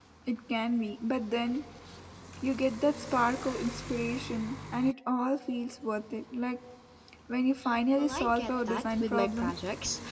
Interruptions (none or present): present